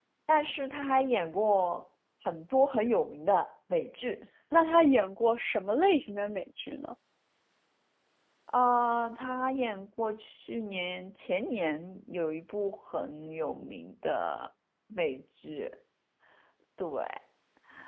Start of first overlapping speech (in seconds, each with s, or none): none